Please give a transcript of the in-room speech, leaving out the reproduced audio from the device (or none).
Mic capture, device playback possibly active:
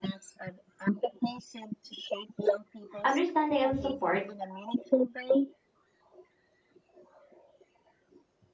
understanding, and support,